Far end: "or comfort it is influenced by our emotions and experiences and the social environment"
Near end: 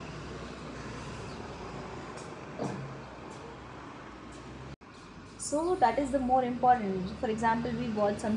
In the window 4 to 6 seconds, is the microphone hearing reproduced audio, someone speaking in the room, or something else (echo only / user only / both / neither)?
user only